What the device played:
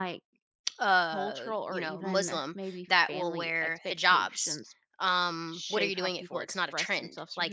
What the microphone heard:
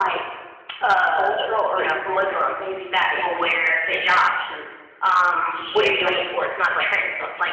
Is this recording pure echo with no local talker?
Yes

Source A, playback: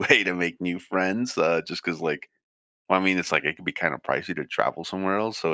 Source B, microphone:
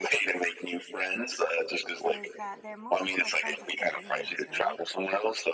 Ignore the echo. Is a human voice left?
Yes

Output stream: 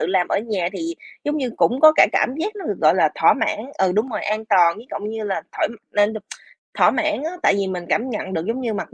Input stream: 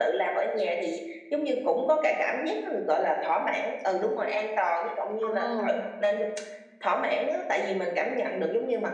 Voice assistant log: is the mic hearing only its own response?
No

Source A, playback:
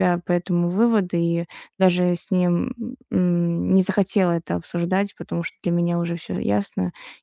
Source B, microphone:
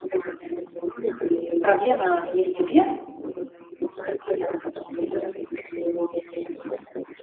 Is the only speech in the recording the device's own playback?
No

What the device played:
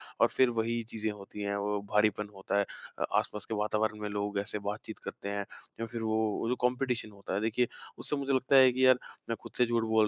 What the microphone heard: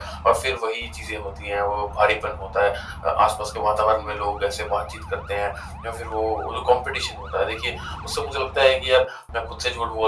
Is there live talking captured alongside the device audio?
No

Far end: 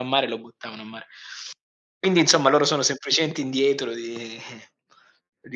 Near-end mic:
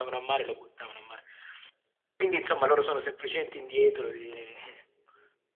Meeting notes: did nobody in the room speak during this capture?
Yes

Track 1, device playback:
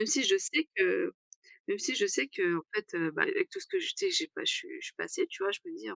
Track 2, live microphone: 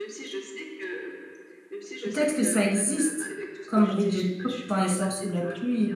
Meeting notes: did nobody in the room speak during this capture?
No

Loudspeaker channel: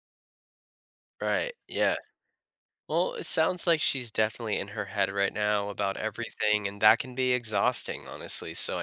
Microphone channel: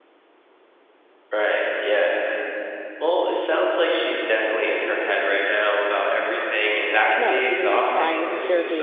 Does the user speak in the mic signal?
Yes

